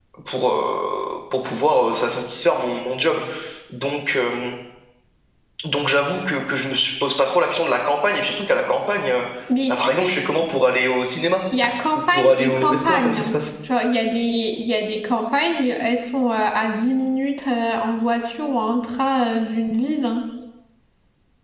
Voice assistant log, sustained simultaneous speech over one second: present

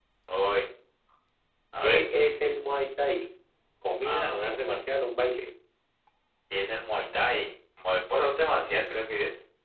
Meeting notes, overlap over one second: none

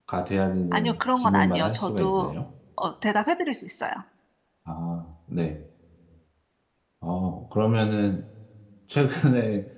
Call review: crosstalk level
present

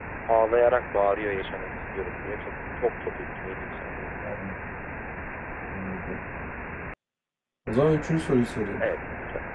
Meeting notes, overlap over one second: none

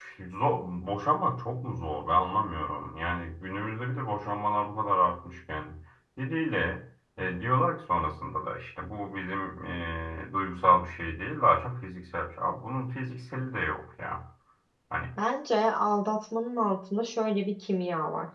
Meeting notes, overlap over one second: none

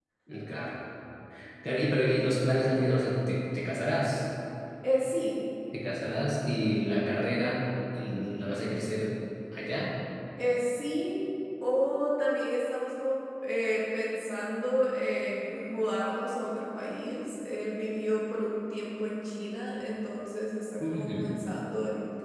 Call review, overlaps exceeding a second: none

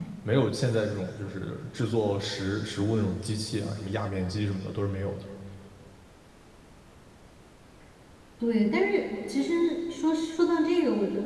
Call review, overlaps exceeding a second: none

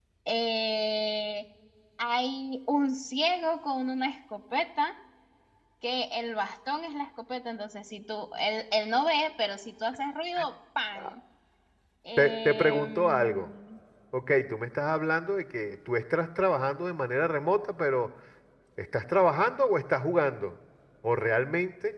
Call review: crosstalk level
present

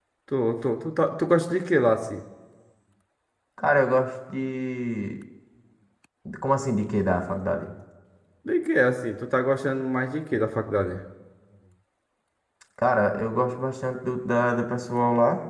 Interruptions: none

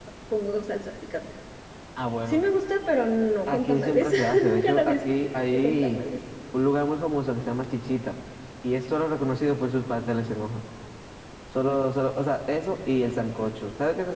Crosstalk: present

